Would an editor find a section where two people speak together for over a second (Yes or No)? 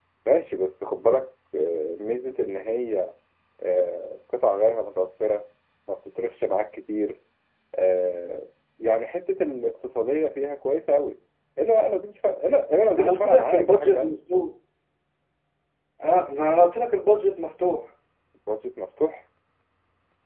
Yes